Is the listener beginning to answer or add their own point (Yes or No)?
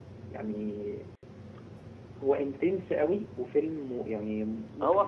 Yes